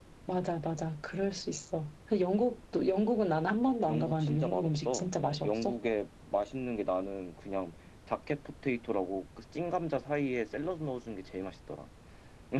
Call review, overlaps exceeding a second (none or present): present